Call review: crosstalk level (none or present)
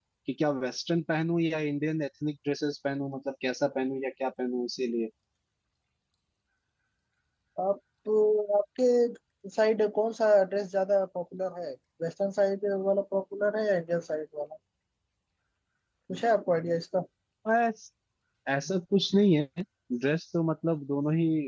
none